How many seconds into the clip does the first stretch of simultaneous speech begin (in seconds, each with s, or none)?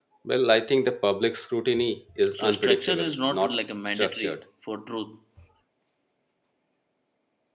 2.3 s